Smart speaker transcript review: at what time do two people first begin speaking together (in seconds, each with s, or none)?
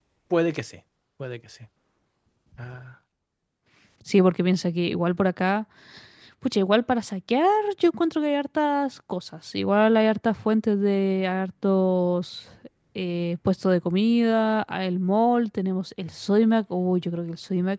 none